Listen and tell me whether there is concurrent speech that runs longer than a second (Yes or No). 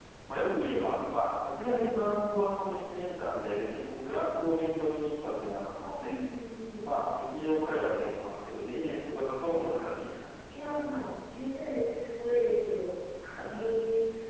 No